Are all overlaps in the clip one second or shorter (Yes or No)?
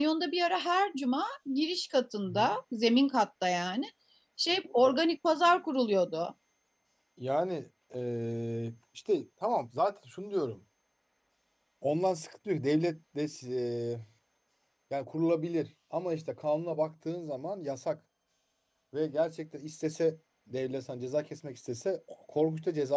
Yes